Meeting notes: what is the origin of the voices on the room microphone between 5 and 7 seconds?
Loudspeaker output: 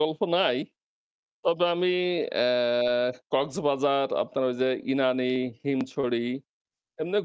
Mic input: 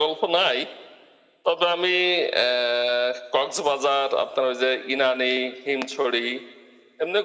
echo only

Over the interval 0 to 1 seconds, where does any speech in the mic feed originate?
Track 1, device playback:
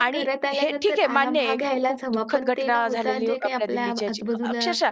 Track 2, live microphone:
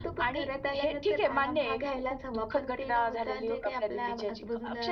echo only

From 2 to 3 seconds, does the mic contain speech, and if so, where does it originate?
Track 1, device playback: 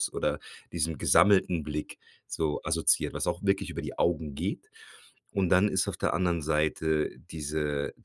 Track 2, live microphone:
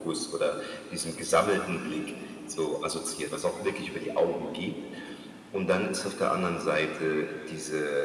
echo only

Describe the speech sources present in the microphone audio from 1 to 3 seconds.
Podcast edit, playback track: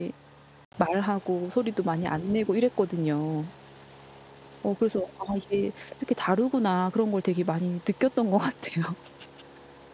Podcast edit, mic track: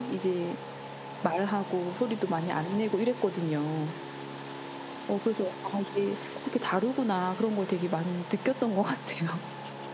echo only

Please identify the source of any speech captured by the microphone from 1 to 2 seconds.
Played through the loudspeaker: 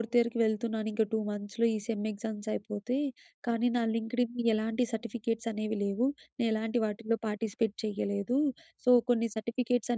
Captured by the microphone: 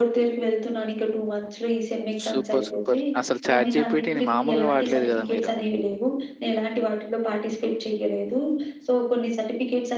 echo only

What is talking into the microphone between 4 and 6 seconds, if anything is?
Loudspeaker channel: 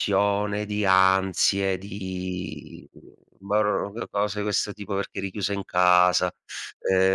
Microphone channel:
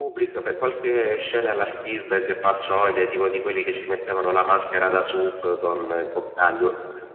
user only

